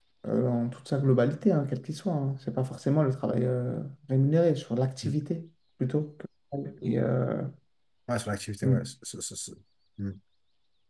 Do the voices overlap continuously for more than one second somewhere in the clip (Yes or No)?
No